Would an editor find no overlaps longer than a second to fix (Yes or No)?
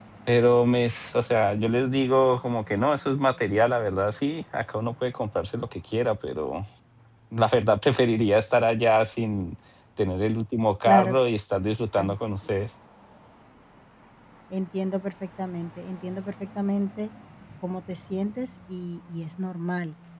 Yes